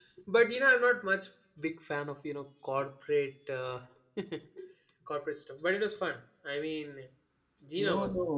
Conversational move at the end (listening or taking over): taking over